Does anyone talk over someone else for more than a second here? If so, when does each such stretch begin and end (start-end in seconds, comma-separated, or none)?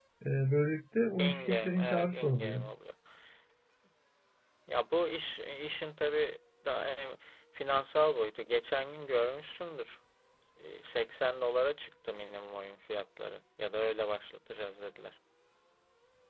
1.2-2.6